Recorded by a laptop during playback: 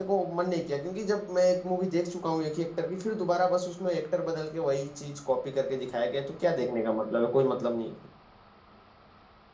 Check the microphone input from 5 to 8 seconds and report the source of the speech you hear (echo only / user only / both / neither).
user only